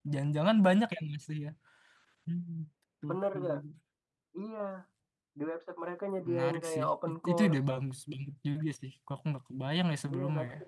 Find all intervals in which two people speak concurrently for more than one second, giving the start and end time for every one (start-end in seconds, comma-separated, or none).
6.3-7.6